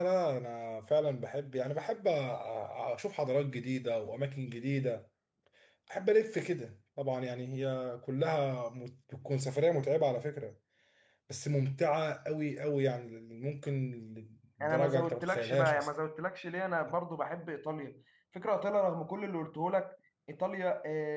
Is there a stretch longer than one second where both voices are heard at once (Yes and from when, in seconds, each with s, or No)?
Yes, from 14.6 s